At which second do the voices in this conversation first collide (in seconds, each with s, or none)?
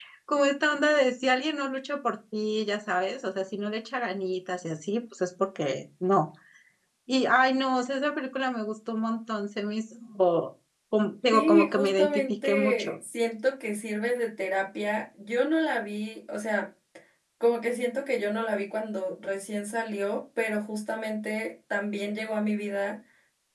11.3 s